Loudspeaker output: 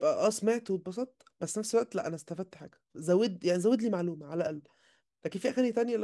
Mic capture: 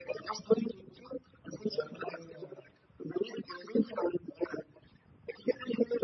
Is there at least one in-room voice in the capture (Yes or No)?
Yes